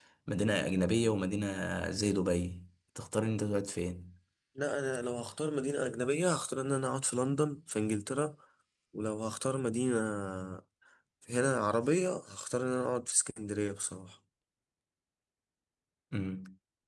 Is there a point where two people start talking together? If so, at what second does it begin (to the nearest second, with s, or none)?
none